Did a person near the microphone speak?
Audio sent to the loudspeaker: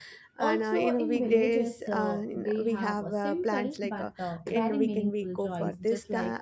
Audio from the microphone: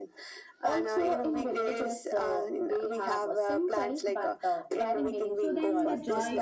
Yes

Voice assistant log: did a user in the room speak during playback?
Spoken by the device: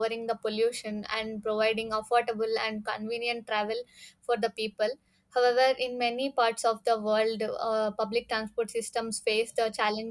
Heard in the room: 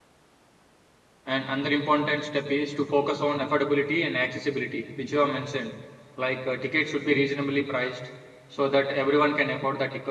Yes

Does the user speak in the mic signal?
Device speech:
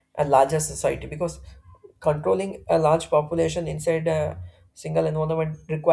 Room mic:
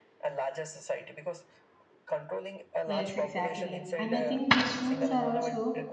Yes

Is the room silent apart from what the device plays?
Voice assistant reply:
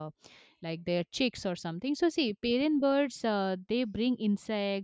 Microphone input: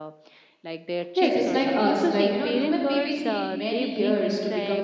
No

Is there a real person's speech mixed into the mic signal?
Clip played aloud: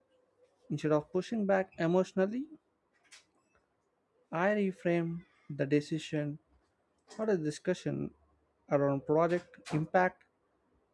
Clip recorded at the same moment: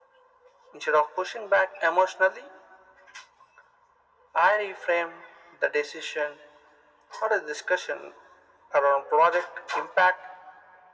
No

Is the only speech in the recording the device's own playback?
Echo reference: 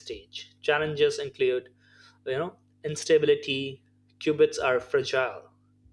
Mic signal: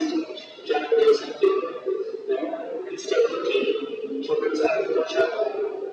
Yes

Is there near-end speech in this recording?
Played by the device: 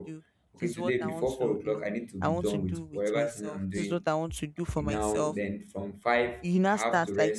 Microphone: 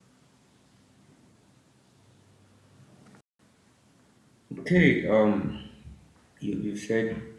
Yes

